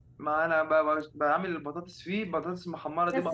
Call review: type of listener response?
taking over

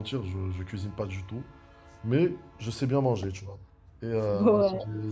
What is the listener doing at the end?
listening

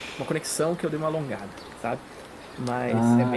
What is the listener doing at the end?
listening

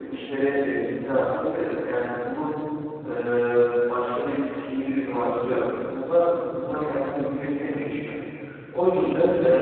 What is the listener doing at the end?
listening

